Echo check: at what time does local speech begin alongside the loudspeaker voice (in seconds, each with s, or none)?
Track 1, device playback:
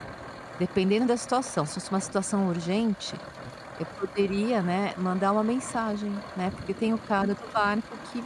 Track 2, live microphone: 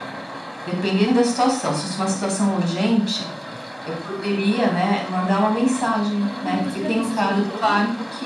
6.1 s